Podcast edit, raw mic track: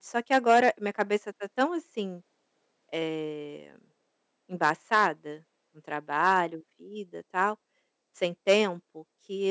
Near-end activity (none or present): present